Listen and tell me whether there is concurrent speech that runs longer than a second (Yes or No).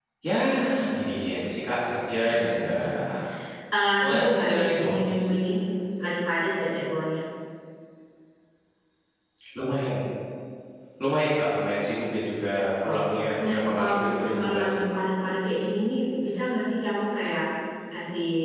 Yes